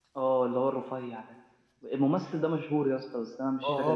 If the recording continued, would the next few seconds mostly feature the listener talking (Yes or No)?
Yes